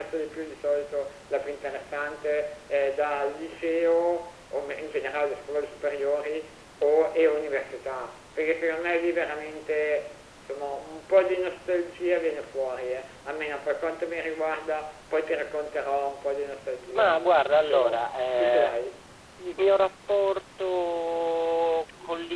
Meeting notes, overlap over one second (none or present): present